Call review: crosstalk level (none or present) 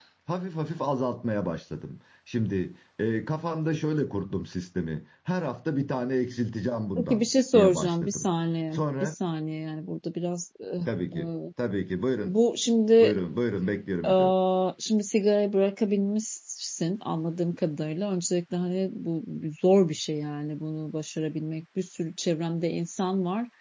present